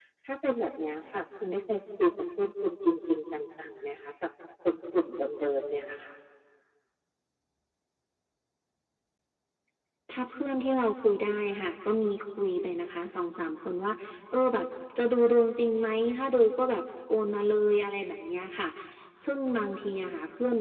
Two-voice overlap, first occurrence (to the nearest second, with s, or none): none